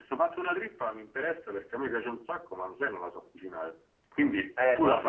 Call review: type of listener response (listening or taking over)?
taking over